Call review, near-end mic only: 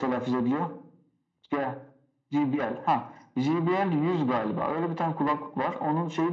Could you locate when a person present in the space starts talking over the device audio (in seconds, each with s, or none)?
none